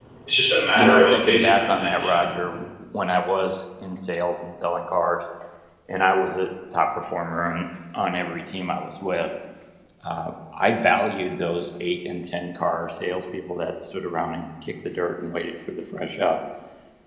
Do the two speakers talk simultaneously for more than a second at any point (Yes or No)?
Yes